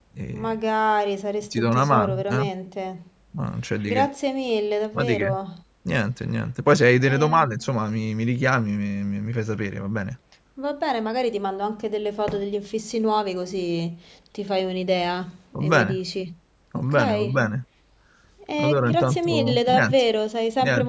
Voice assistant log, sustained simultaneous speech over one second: present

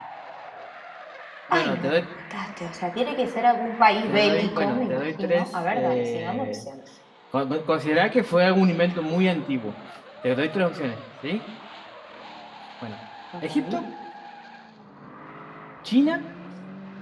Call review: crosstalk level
present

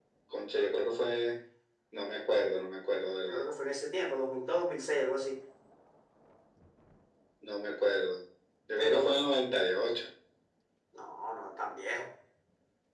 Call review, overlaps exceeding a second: none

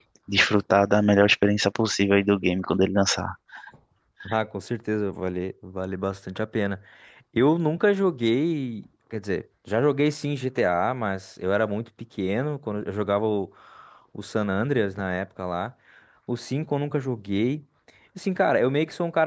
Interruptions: none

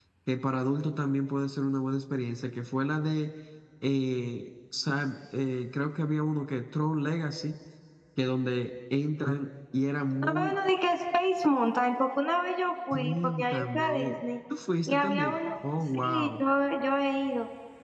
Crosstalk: present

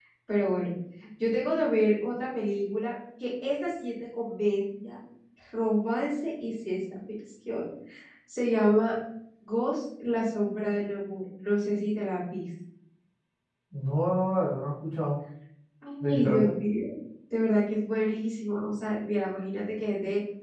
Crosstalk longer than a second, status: none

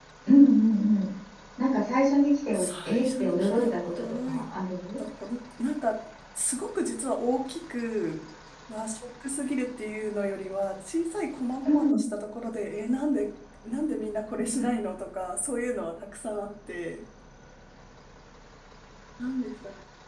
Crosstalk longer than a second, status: present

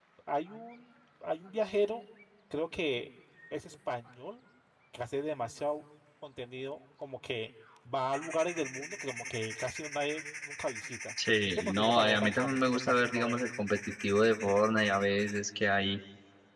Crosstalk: present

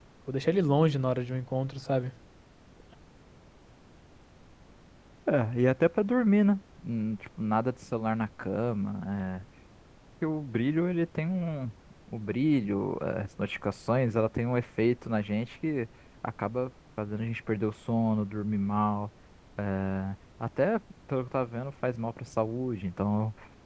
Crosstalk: none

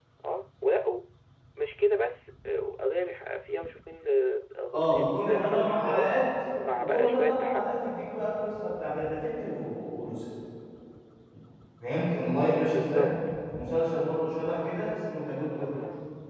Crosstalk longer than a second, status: present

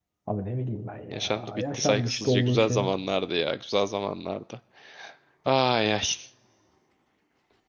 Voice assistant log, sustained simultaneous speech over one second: present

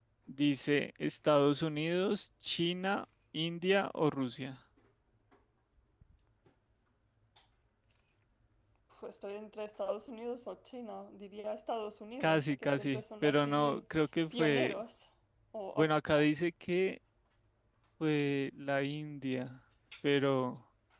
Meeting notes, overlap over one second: present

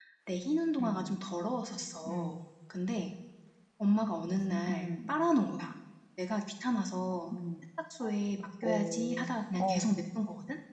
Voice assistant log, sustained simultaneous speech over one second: present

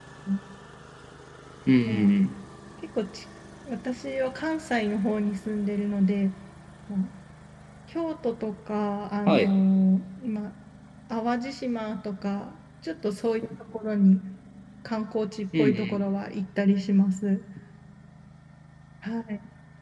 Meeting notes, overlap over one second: none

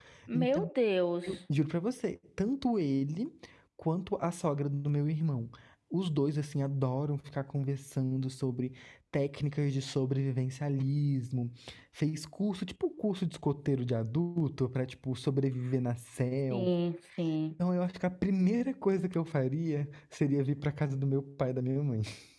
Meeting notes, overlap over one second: none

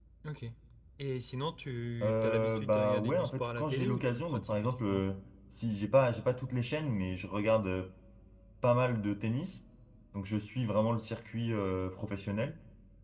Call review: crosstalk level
present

